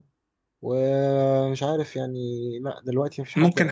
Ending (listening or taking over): taking over